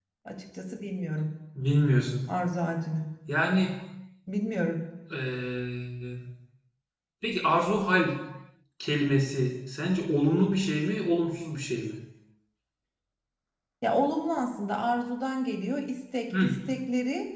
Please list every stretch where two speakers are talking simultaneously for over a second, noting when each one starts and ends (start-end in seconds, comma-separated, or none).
none